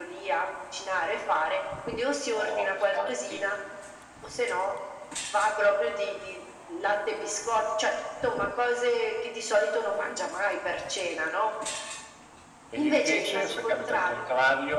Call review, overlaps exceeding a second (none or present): present